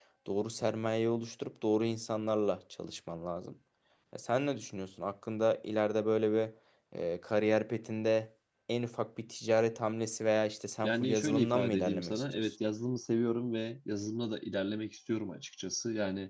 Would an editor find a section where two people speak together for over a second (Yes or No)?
Yes